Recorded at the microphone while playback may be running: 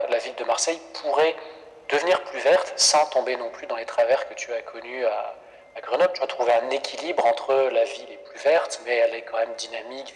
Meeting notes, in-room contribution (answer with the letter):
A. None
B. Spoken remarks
A